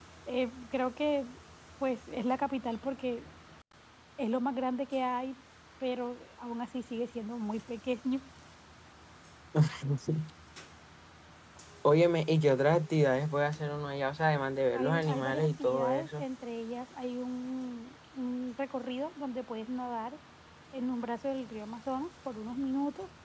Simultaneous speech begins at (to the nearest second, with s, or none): 15 s